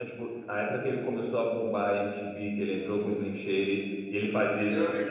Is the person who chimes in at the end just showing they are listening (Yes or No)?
Yes